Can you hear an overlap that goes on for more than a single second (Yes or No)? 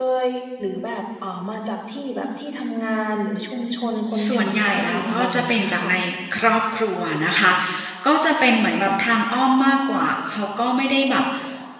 Yes